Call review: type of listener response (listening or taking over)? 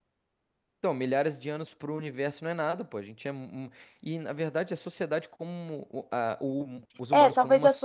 taking over